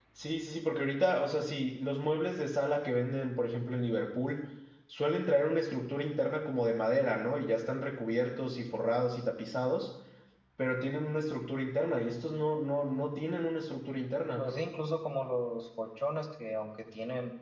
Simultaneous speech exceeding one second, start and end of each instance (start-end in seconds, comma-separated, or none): none